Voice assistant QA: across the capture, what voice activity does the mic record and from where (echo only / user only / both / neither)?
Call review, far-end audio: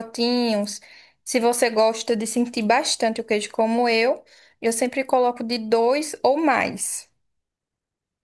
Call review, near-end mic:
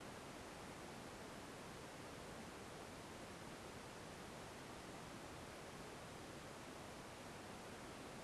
neither